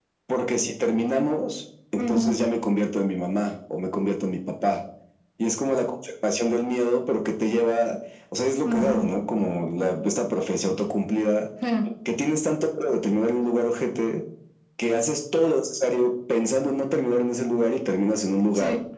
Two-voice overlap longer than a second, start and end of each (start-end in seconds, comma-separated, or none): none